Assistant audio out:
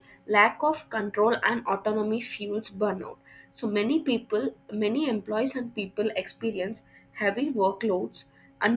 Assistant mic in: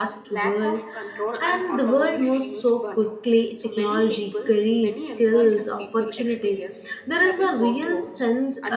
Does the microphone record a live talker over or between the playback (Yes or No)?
Yes